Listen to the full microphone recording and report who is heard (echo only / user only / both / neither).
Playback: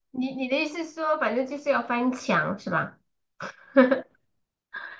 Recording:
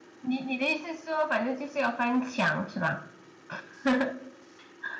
echo only